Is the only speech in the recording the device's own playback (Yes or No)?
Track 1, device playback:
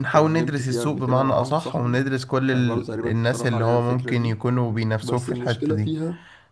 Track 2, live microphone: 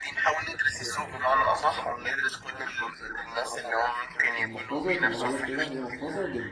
No